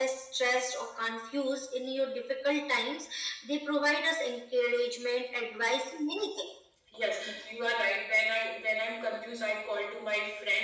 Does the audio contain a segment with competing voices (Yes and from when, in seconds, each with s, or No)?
No